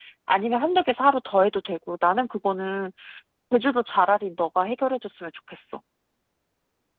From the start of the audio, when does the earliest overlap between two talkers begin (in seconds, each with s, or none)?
none